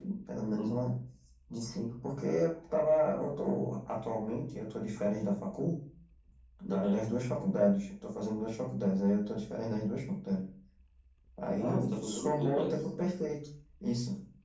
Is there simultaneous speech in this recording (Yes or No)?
Yes